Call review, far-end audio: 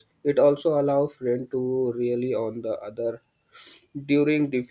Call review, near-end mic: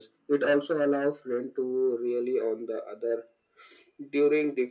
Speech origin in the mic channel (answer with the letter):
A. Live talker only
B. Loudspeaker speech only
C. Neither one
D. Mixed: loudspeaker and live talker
B